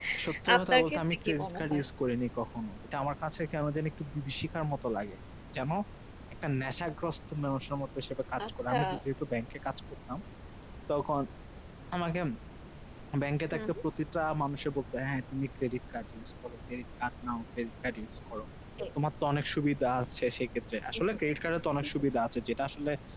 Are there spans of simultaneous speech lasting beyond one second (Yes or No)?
Yes